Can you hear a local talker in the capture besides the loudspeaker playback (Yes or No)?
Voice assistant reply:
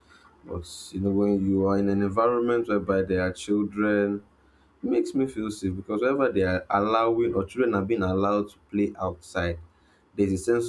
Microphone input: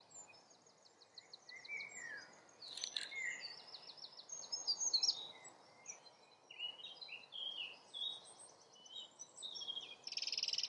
No